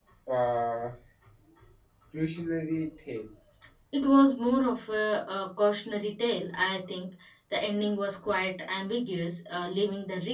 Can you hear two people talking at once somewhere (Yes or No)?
No